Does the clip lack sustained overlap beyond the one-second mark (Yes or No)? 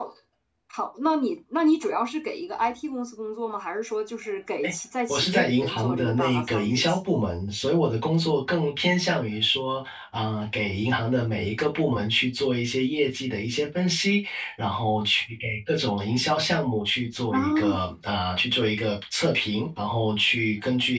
No